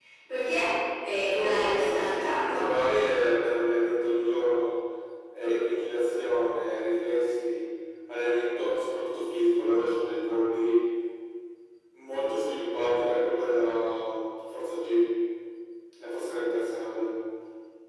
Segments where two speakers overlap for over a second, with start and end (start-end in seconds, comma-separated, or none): 1.2-2.6